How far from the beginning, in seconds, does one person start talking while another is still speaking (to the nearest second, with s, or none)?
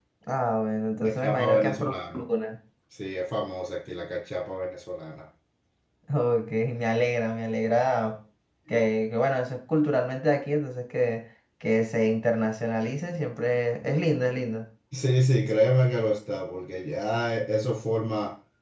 1 s